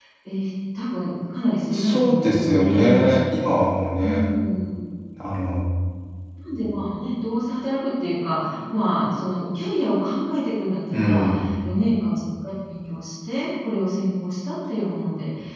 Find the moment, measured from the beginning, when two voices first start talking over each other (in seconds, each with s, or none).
1.7 s